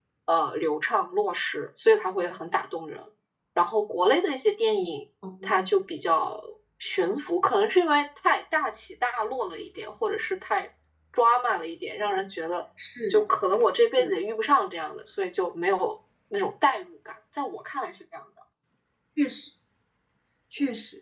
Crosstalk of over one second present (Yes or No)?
No